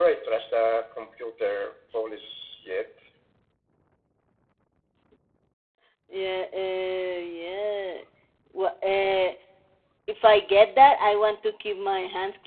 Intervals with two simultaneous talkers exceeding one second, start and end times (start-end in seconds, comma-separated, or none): none